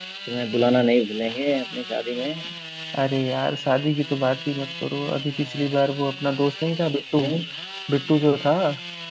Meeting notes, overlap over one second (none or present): none